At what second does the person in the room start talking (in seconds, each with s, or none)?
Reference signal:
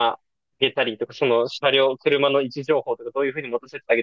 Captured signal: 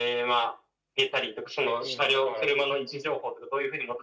1.6 s